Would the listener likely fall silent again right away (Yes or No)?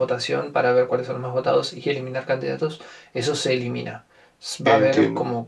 Yes